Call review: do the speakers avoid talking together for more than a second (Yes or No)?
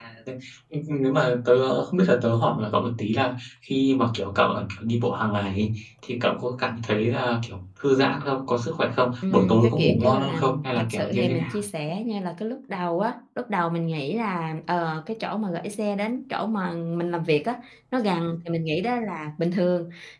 No